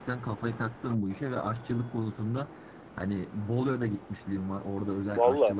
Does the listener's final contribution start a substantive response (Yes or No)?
No